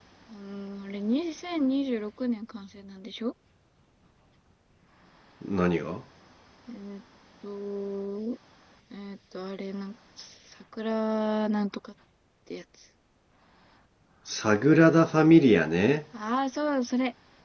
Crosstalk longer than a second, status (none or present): none